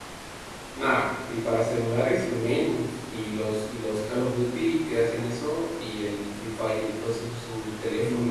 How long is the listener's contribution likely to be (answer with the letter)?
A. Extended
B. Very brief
A